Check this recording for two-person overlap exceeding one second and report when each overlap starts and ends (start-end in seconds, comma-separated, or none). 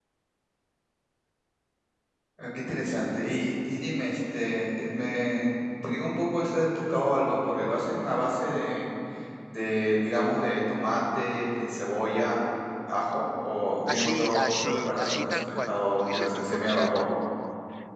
13.9-17.1